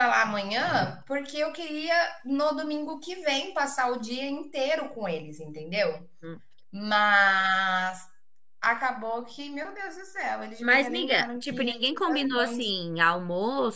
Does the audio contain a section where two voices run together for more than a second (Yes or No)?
Yes